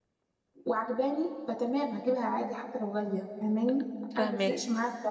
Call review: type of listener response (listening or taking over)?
listening